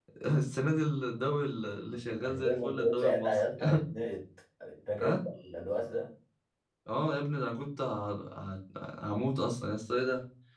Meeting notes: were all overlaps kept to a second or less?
No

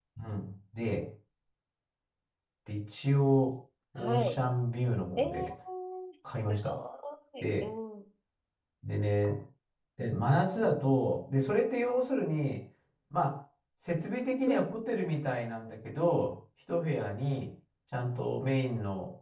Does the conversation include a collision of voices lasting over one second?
No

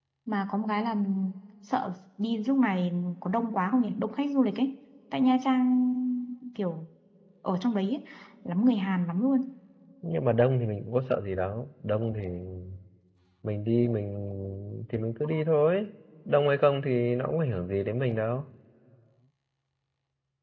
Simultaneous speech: No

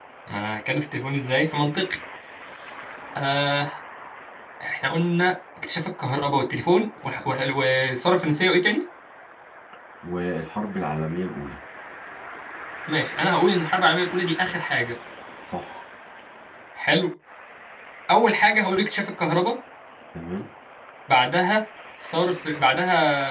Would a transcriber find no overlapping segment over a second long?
Yes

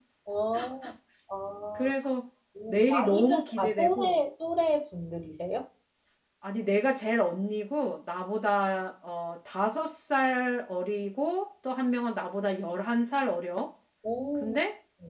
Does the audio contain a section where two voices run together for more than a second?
Yes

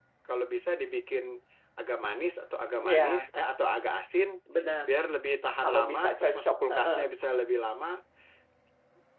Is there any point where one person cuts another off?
Yes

